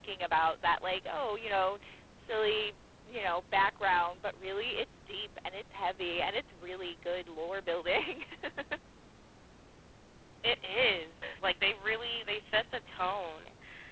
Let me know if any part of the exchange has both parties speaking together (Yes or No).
No